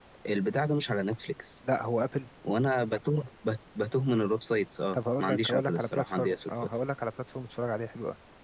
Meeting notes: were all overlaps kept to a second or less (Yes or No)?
No